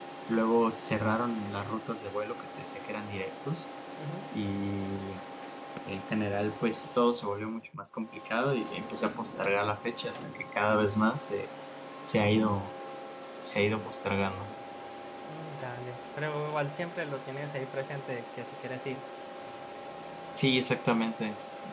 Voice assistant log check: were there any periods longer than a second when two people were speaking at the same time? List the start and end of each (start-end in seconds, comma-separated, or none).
none